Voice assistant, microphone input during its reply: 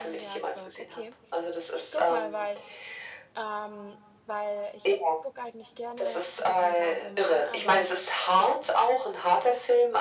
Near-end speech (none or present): present